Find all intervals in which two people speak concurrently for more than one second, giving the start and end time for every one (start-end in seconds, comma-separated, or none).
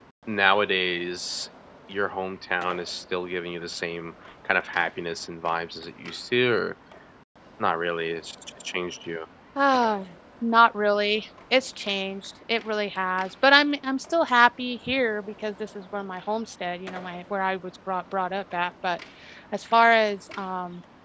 none